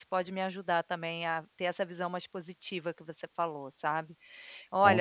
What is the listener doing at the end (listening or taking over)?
listening